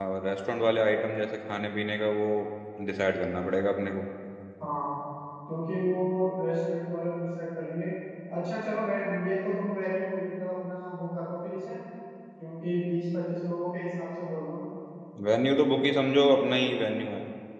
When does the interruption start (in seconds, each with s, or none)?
none